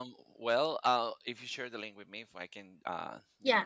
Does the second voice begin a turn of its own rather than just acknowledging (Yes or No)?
Yes